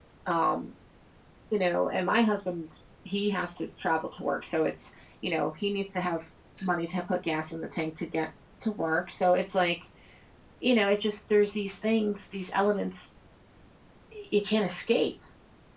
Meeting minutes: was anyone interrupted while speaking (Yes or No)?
No